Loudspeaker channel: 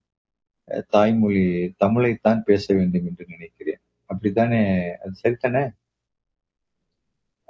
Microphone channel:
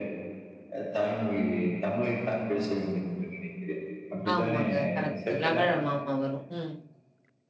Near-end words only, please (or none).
ஆமாங்க. கரெக்ட். லகழம் ஆமா வரும். ம்.